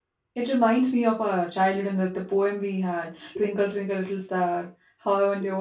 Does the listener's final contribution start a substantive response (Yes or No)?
No